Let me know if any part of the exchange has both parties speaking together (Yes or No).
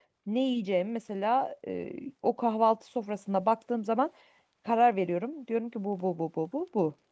No